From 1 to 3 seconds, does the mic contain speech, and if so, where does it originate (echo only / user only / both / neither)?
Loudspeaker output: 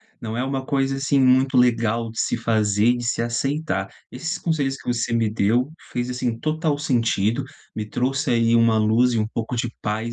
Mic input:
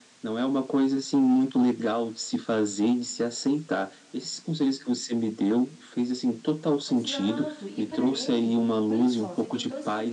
echo only